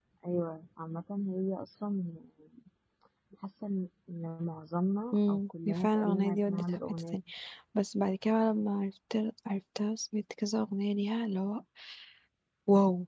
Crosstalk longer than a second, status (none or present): present